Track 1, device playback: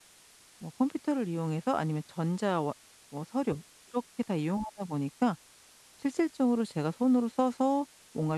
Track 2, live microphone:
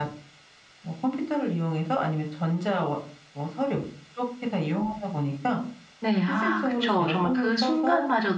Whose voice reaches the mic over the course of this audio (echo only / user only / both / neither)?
both